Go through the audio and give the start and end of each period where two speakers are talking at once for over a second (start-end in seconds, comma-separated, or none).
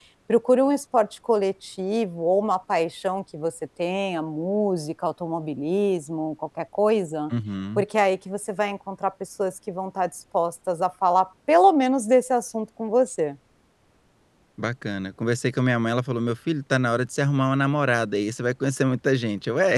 none